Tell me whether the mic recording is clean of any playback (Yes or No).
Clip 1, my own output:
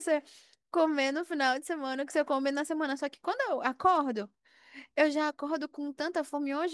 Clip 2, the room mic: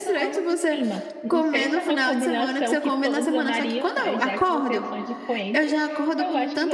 No